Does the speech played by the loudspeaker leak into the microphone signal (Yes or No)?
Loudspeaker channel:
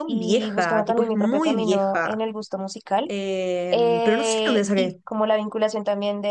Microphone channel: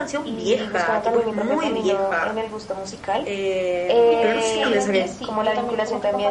Yes